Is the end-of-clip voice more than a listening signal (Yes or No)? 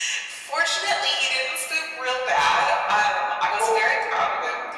No